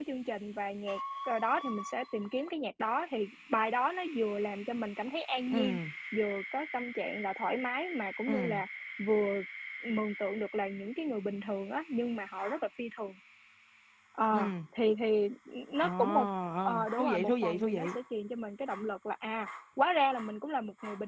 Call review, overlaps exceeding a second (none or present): present